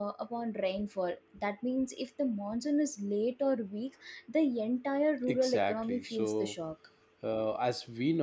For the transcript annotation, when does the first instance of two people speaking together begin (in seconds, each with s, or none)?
5.3 s